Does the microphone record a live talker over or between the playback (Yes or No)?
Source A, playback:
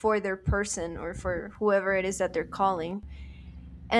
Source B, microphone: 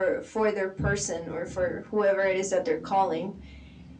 No